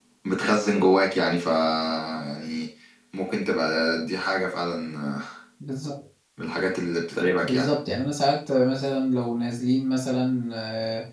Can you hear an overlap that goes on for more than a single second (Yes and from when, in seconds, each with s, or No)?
No